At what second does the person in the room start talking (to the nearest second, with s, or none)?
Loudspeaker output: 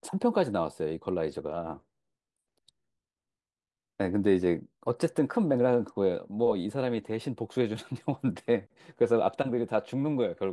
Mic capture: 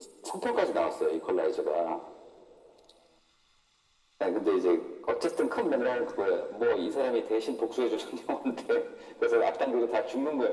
none